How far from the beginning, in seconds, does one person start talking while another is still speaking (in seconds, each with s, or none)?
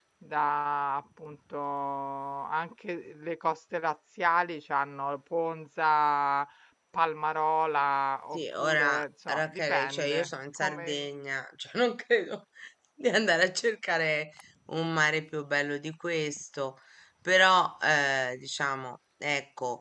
8.3 s